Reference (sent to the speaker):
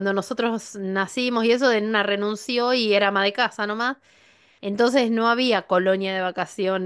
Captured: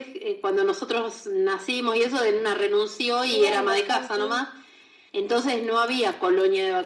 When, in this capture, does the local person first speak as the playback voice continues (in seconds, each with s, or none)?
3.3 s